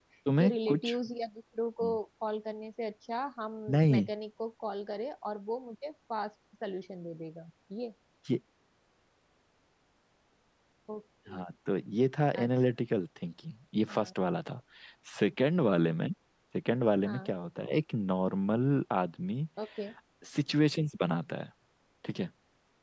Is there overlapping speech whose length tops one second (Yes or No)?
No